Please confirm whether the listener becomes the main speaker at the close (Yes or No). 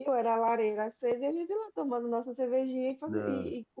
No